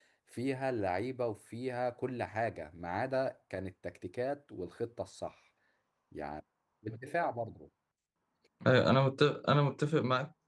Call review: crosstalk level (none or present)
none